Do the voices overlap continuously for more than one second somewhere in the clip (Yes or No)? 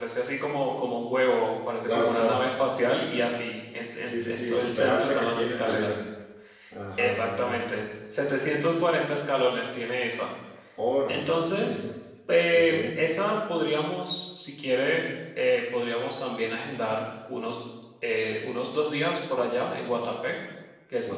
Yes